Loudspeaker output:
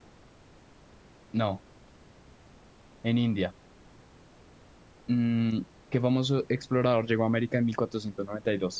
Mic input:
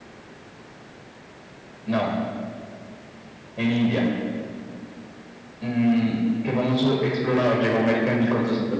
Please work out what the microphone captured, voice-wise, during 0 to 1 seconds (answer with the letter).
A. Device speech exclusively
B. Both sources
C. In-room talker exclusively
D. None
D